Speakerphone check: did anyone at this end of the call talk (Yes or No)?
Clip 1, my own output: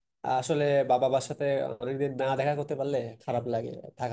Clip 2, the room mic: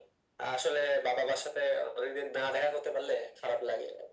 No